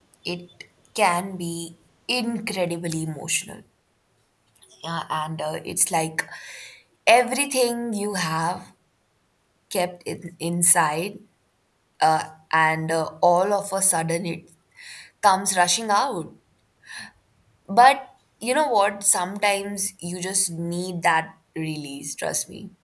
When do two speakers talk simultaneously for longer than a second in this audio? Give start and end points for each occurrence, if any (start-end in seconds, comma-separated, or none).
none